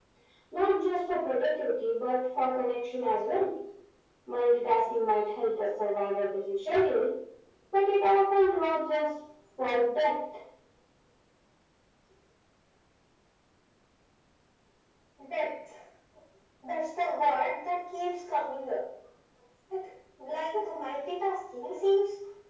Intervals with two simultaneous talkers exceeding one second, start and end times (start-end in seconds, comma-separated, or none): none